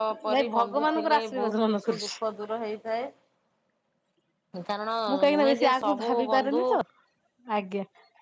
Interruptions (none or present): present